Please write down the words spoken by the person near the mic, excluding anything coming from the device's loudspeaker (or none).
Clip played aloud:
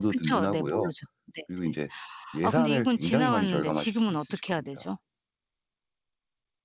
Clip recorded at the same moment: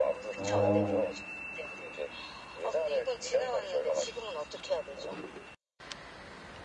어.